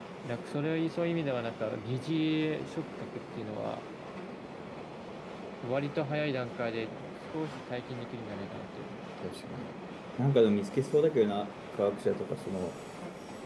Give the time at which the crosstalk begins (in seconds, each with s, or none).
none